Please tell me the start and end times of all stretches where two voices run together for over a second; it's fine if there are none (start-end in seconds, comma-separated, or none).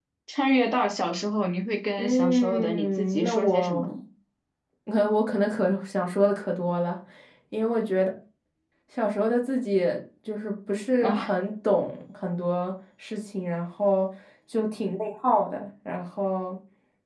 2.0-3.9